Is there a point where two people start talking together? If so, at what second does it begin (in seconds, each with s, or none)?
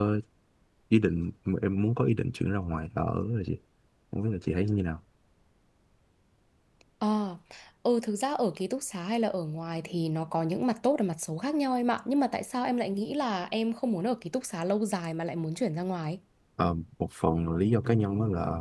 none